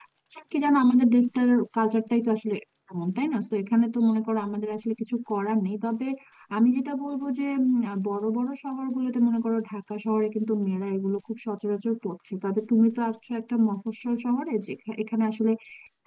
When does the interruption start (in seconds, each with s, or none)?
none